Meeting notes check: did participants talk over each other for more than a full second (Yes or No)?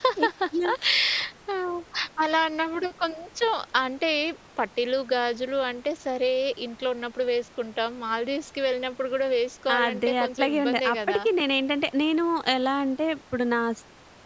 Yes